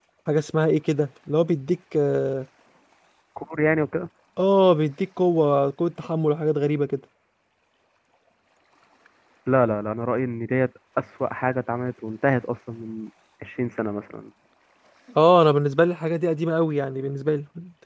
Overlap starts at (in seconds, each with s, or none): none